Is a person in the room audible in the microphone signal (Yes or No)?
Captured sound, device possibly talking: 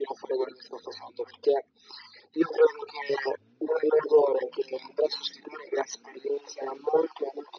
No